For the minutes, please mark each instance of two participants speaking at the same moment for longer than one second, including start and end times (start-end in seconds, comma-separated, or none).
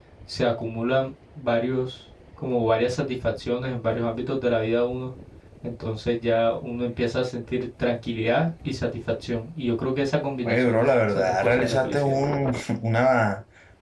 10.4-12.2